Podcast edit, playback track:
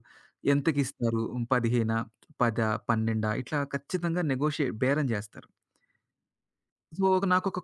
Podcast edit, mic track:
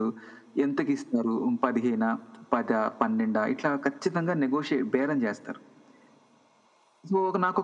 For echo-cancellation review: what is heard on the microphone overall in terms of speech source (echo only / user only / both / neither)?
echo only